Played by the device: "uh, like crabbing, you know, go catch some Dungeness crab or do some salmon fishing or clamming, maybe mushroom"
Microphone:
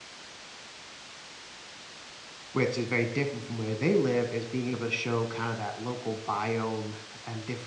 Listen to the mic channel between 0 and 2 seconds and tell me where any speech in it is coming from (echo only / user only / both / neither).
neither